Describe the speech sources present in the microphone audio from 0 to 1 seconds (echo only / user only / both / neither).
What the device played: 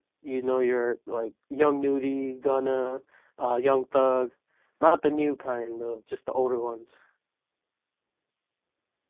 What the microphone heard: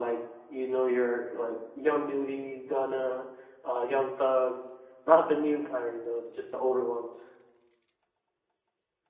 echo only